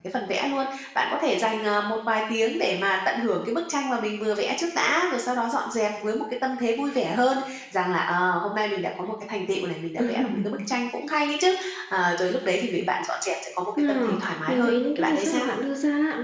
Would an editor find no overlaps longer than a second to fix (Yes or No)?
No